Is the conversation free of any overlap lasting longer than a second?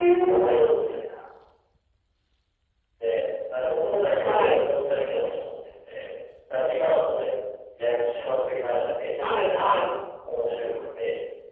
Yes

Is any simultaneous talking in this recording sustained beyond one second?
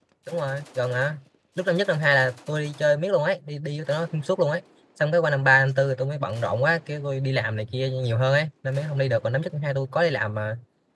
No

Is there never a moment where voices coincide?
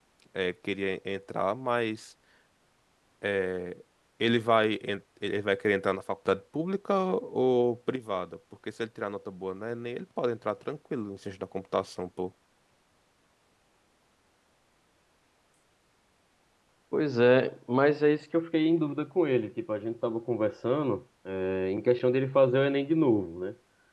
Yes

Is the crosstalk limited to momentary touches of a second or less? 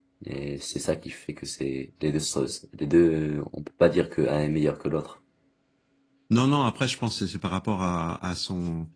Yes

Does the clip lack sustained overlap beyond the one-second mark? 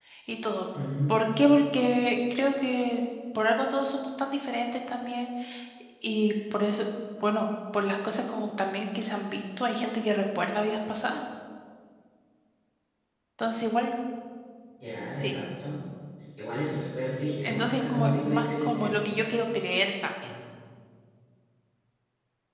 No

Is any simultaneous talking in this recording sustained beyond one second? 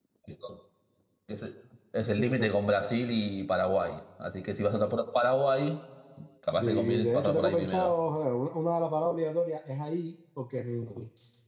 Yes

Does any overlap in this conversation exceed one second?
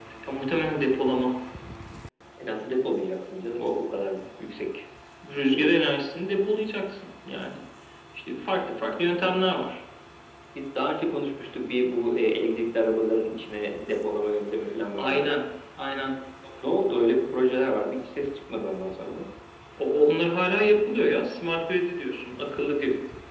No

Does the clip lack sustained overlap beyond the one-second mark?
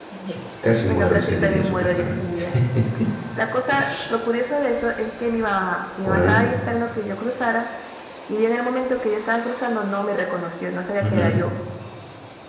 No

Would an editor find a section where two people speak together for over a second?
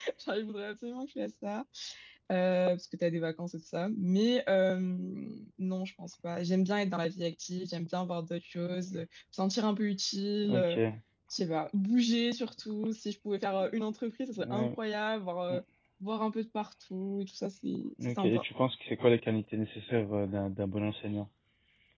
No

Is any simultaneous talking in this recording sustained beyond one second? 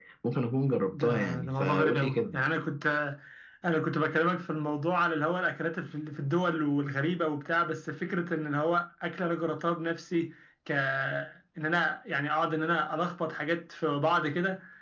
Yes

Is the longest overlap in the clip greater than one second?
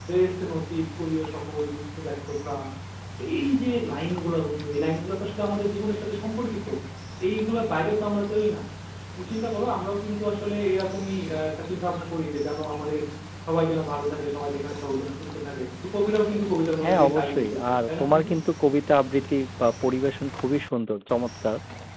Yes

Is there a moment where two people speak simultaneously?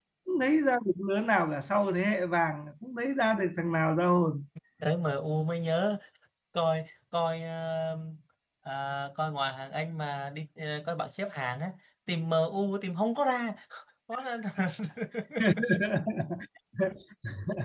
No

